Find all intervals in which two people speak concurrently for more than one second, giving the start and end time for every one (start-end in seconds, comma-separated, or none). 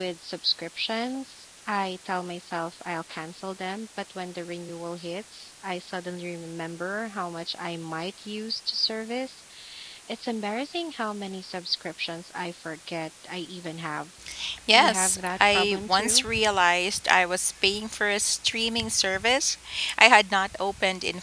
14.7-16.2